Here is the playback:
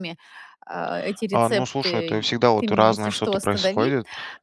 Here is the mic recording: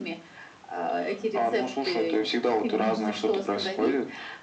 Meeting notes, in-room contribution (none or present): present